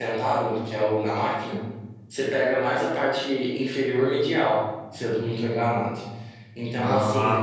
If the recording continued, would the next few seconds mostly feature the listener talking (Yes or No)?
No